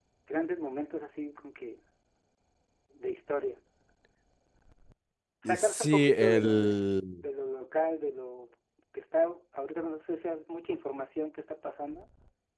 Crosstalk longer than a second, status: present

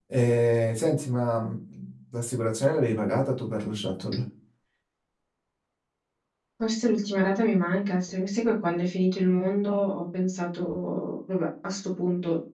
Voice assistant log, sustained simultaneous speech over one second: none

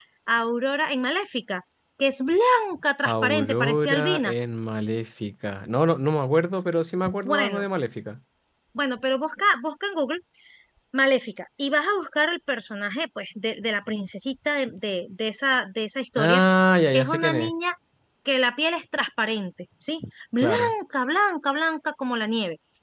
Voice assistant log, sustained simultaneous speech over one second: present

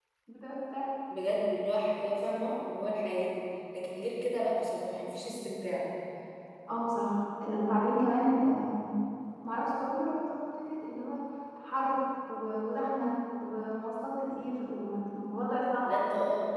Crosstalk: none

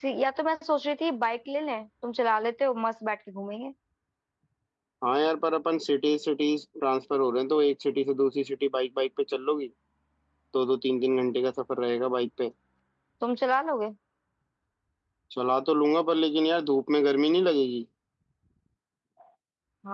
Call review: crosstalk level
none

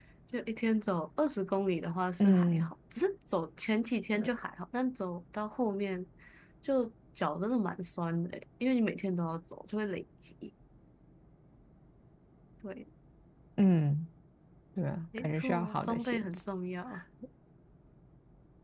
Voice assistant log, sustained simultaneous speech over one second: present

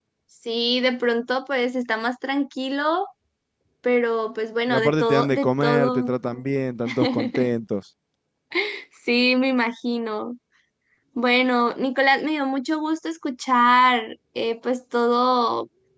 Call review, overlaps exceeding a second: present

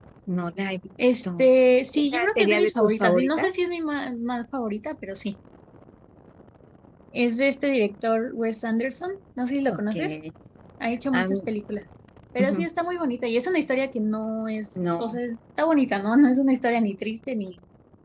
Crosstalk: present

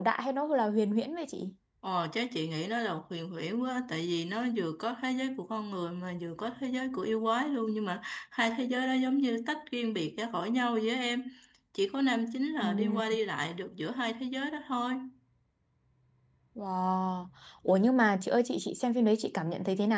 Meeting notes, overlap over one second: none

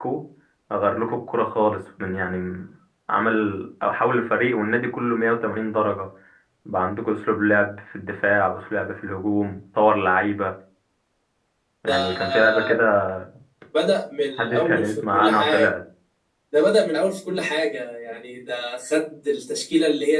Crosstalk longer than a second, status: present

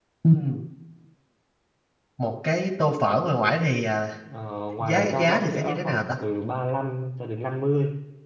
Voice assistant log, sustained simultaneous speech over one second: present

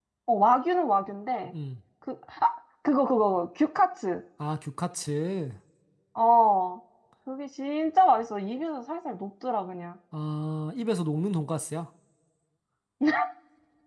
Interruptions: none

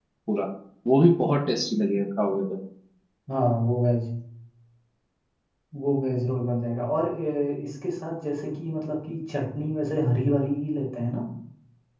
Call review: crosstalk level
none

